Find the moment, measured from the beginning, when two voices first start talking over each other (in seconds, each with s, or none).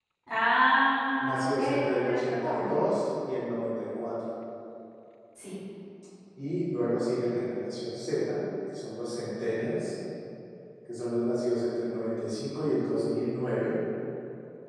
1.2 s